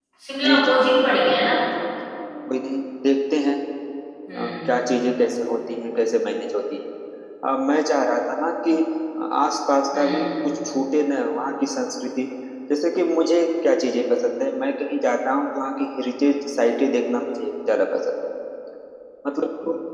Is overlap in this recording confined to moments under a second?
Yes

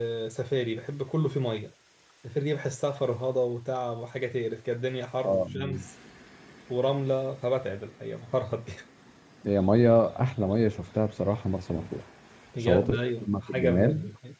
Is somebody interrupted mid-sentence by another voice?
Yes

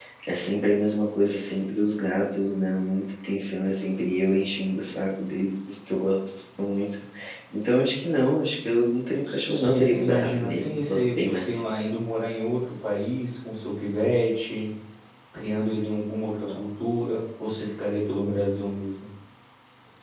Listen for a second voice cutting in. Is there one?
Yes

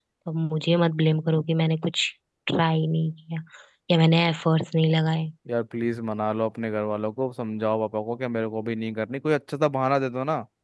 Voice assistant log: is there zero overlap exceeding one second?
Yes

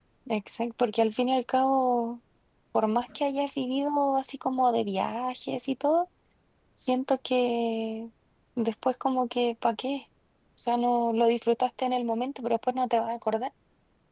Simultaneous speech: No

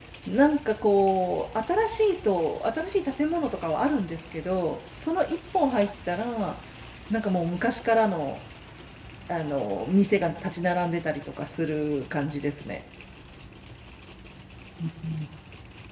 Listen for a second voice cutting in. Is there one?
No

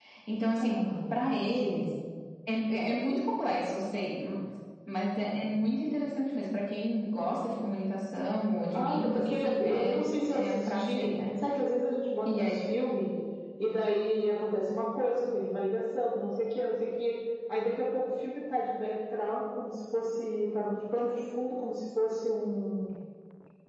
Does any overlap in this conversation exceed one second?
Yes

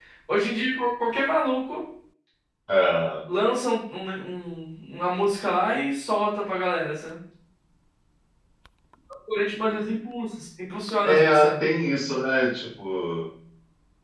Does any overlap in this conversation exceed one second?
No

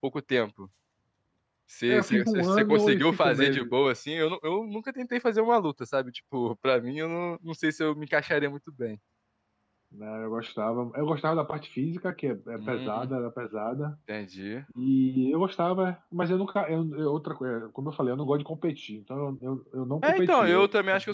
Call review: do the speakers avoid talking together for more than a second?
No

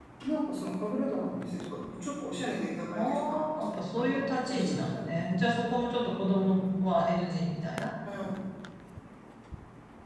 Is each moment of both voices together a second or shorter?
No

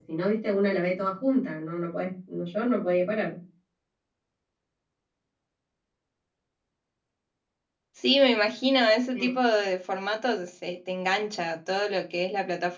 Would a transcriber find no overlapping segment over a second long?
Yes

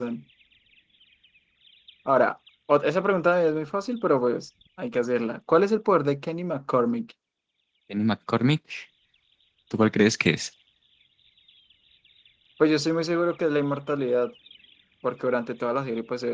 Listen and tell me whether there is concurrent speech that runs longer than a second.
No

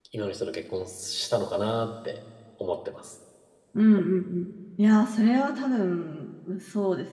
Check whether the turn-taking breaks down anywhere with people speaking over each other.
No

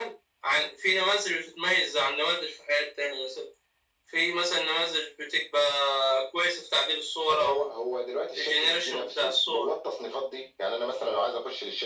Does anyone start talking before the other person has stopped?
Yes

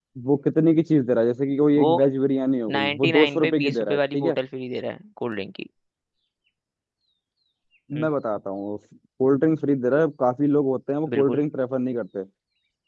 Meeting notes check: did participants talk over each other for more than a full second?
Yes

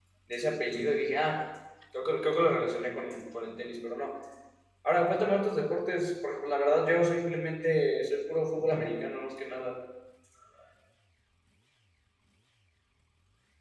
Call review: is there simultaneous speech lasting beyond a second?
No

